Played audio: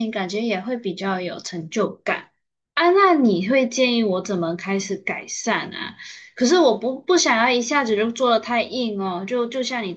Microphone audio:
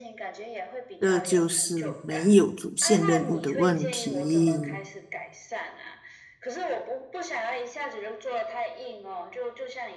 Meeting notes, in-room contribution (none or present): present